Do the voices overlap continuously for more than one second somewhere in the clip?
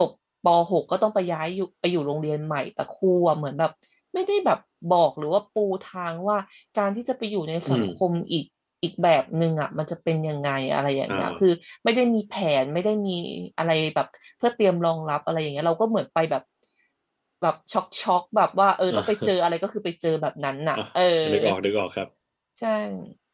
No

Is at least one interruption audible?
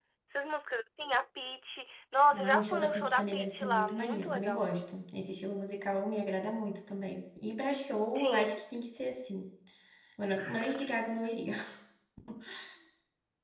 Yes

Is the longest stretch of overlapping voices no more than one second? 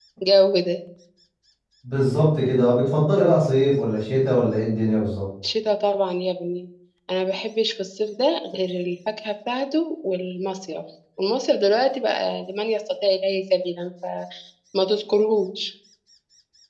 Yes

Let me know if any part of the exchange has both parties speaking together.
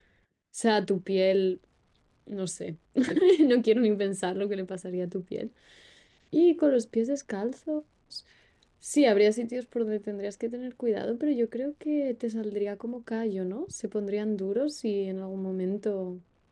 No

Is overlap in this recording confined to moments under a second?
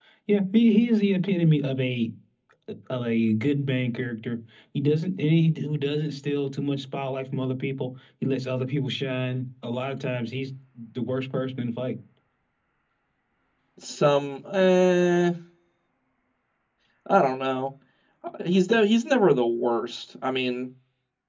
Yes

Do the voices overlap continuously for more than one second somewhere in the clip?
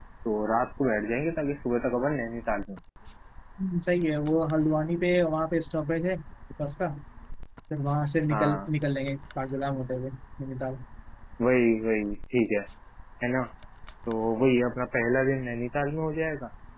No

